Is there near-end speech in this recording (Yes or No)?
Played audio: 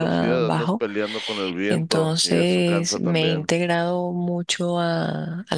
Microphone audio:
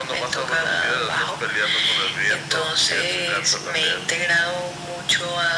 No